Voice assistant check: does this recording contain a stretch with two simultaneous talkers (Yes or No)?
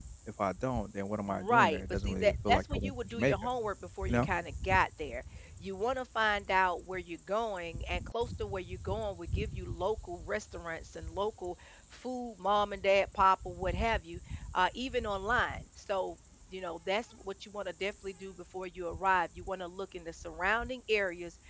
Yes